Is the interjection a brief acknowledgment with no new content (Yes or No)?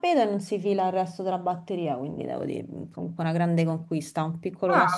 No